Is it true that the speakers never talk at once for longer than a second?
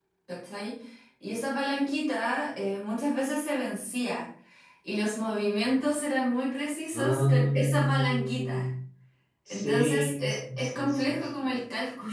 No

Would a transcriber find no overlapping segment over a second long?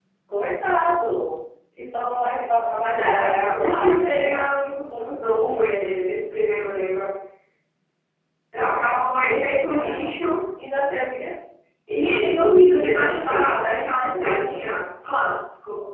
No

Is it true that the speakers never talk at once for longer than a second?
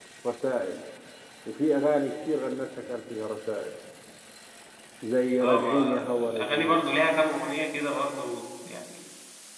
No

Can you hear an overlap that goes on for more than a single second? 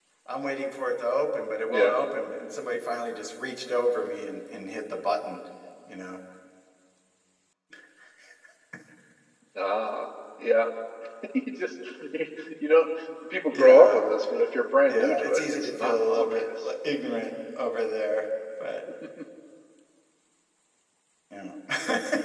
Yes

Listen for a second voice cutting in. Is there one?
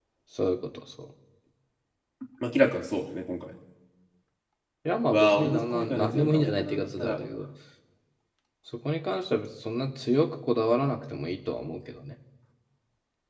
Yes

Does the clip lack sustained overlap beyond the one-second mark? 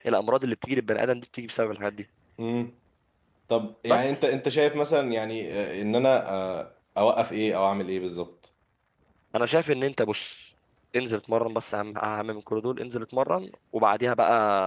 Yes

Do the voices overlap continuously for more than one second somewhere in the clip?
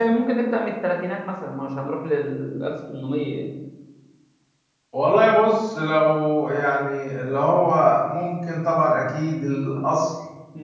No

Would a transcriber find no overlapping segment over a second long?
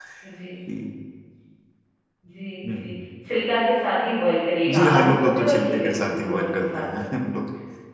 No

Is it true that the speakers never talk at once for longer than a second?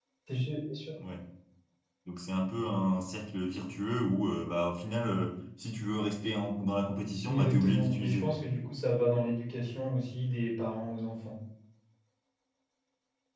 No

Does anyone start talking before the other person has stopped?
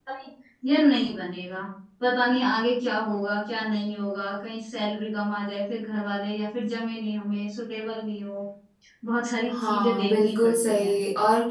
Yes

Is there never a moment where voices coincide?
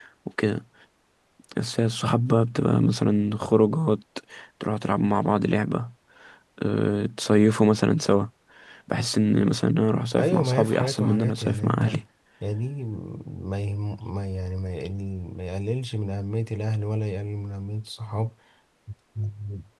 No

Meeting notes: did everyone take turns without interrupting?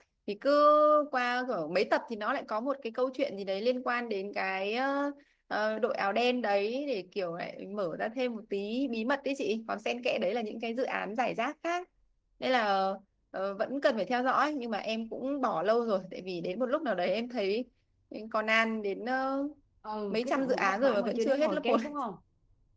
No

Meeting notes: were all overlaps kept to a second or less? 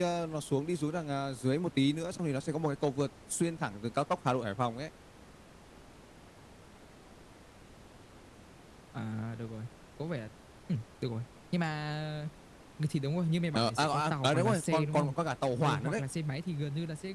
No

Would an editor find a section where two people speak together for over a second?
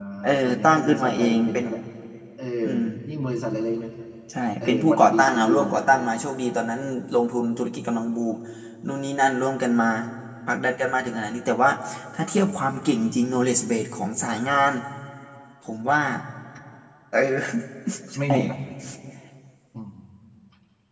Yes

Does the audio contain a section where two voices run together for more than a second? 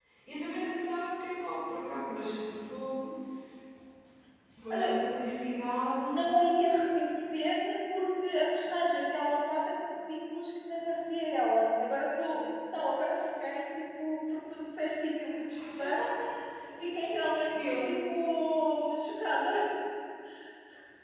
No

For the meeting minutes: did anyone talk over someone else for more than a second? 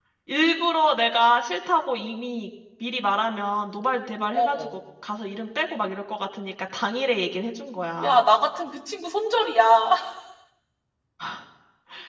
No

